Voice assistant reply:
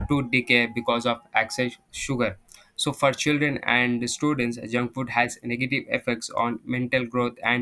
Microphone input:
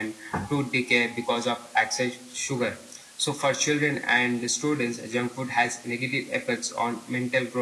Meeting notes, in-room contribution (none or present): none